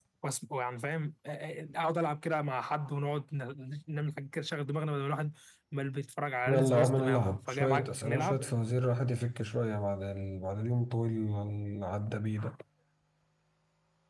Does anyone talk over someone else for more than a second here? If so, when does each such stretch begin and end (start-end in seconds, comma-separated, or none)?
6.5-8.4